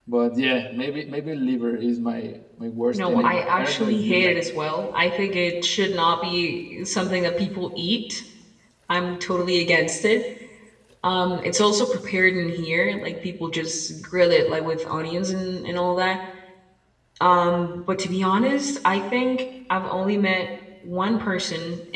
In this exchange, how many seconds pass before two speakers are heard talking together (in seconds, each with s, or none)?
2.9 s